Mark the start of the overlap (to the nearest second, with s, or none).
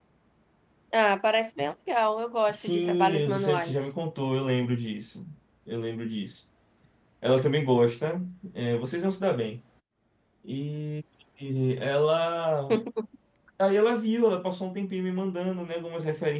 2 s